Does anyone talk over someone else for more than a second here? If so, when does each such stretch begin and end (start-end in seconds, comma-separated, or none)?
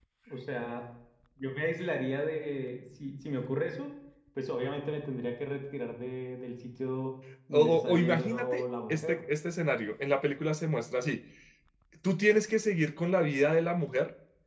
7.5-9.2